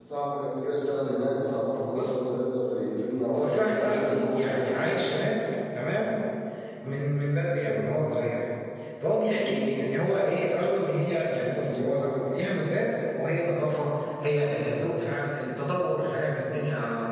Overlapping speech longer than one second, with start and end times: 3.3-5.0

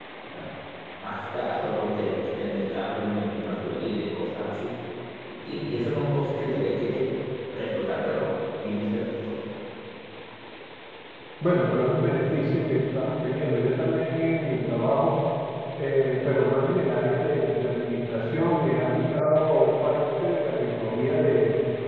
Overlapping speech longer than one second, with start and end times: none

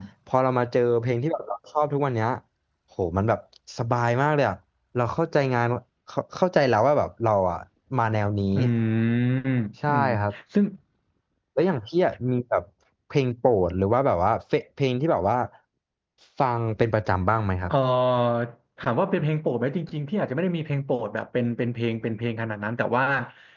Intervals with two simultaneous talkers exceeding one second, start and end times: none

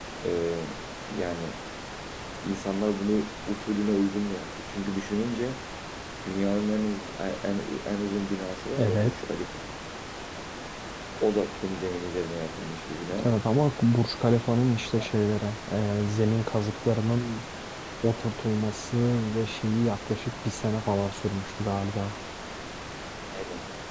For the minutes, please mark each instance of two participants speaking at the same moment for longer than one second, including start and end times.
none

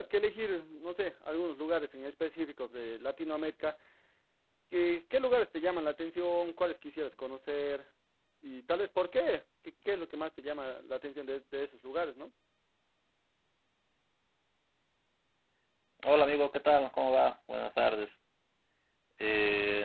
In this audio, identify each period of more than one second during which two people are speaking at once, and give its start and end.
none

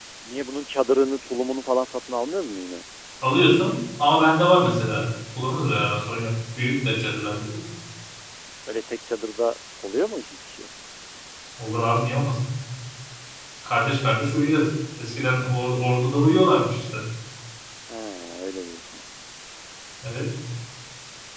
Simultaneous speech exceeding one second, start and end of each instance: none

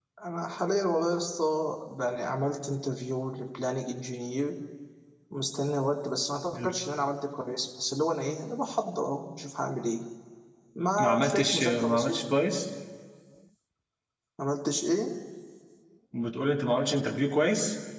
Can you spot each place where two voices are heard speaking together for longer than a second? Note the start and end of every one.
11.0-12.2

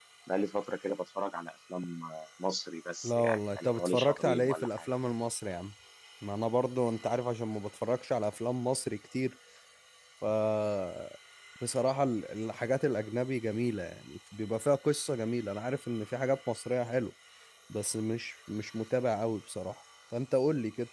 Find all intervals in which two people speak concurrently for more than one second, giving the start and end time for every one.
3.0-4.8

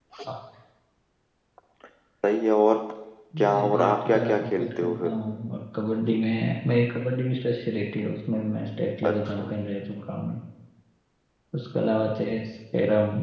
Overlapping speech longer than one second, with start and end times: 3.4-5.1

